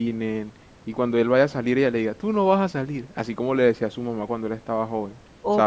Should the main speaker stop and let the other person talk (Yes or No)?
Yes